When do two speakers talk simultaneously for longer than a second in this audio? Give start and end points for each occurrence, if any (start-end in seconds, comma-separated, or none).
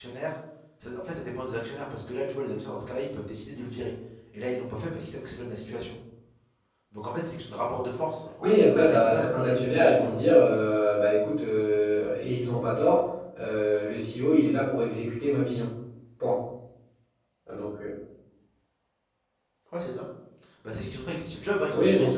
8.4-10.3